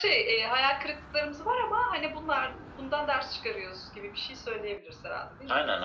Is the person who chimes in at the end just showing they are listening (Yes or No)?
No